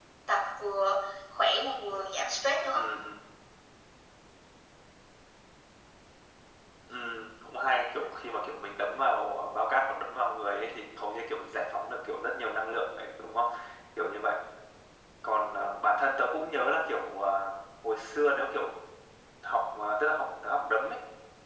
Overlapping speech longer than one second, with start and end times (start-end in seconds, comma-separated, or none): none